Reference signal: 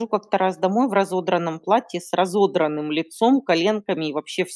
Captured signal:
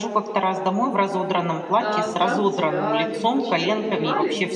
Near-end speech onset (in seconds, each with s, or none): 1.8 s